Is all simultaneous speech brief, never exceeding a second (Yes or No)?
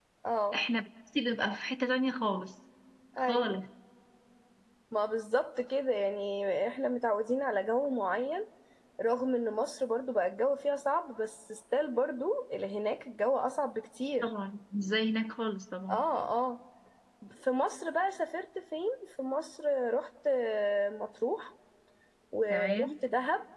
Yes